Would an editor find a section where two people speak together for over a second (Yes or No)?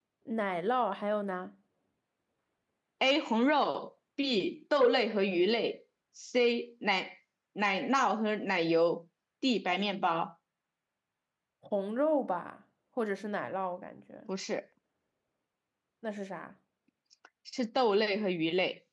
No